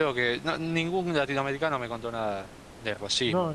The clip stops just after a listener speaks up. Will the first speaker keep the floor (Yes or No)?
No